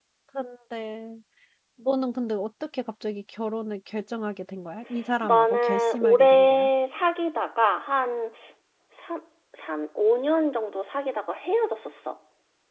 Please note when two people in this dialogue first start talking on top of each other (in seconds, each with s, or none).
5.2 s